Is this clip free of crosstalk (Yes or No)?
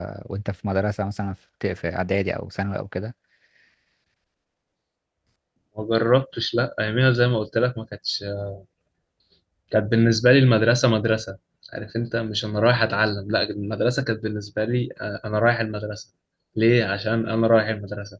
Yes